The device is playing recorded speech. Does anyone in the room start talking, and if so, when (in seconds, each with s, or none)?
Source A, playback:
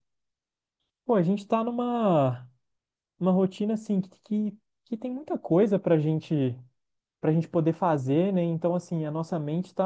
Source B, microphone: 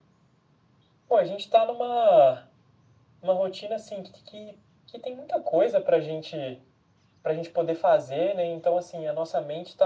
none